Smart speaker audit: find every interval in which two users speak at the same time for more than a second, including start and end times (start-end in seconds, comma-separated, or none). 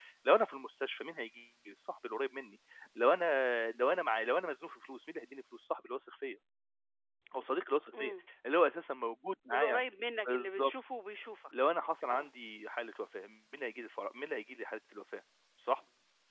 none